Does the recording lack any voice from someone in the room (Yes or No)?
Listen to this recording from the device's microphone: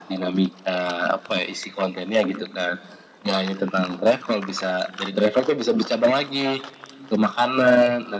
Yes